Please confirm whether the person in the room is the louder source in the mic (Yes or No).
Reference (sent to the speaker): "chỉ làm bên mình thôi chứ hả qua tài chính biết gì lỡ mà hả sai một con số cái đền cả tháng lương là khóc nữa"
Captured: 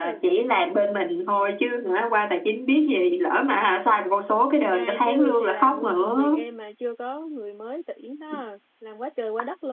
No